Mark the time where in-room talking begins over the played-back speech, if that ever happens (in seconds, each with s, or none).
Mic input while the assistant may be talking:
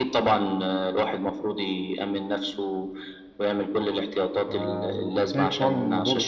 4.5 s